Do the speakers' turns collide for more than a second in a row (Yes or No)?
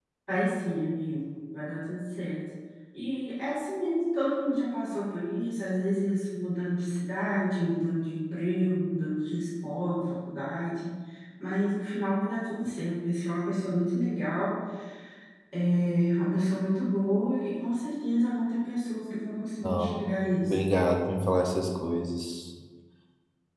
No